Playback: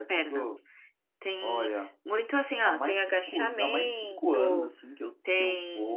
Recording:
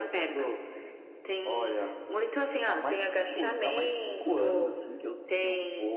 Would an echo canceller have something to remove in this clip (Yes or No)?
Yes